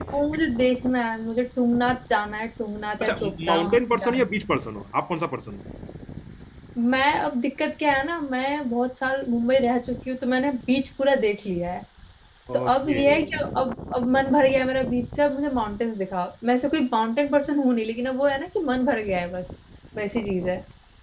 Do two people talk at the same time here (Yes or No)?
Yes